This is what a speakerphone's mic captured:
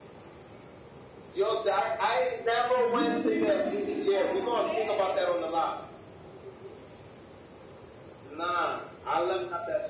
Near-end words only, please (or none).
You, do you read the caption?